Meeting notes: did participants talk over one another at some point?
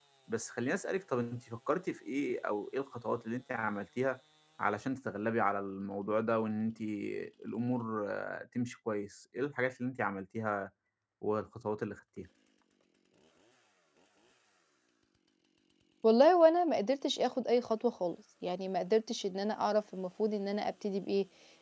No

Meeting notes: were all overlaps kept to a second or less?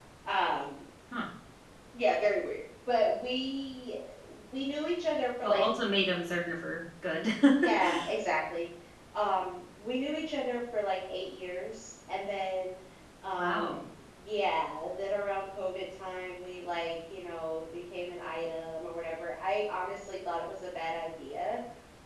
Yes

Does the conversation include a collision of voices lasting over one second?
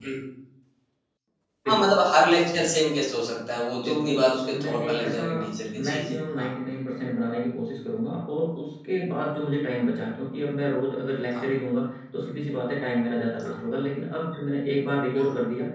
Yes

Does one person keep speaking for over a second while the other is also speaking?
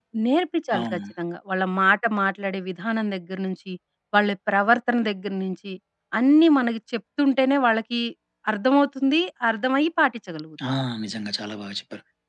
No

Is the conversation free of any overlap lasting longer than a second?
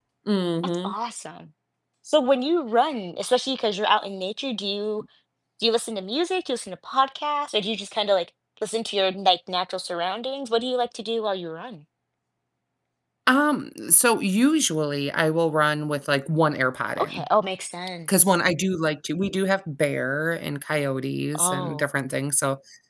Yes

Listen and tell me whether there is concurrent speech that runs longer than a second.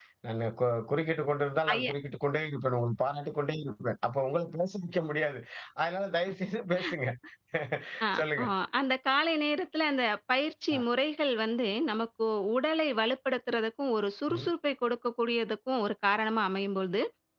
No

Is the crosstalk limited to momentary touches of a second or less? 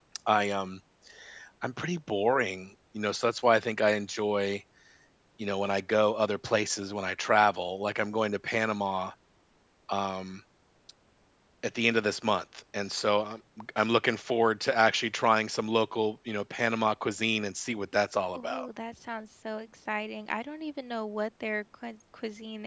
Yes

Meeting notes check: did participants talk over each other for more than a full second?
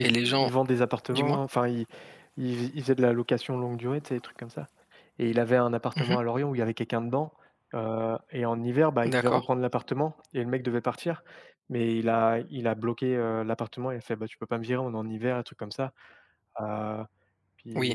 No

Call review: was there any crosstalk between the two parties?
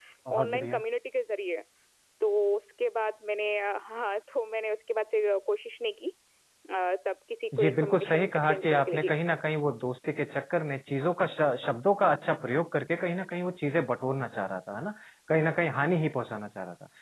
Yes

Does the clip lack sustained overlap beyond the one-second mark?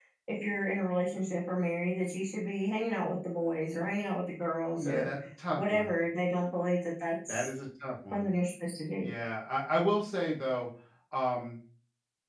Yes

